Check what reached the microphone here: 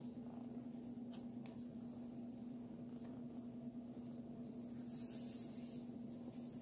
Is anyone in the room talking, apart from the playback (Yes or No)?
No